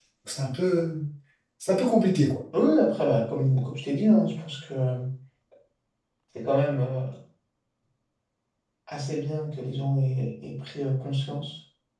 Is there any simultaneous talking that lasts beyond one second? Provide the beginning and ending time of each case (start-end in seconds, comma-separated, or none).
none